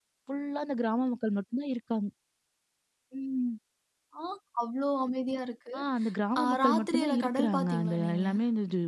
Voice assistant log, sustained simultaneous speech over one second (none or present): present